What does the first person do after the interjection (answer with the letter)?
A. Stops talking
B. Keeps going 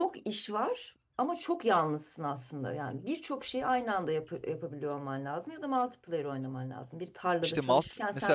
A